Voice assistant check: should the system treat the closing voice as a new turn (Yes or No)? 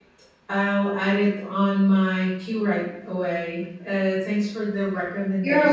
Yes